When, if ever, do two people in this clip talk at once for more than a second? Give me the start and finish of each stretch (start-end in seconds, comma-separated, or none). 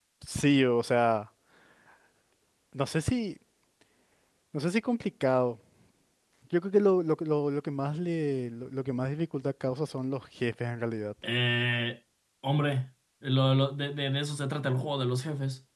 none